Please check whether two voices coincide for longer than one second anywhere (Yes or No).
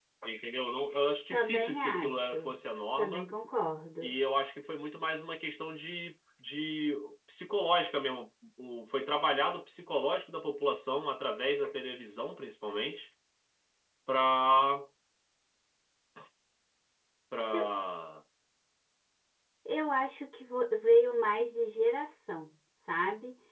Yes